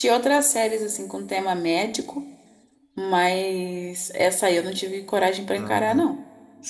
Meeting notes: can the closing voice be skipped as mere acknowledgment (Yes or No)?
No